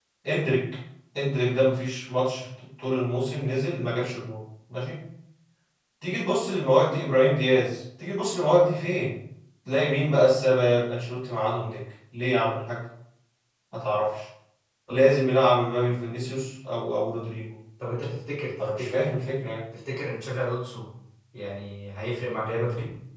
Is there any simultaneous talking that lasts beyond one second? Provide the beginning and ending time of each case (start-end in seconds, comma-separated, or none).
none